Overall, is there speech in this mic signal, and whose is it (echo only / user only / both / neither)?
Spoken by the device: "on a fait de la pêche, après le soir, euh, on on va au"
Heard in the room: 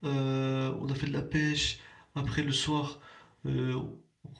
echo only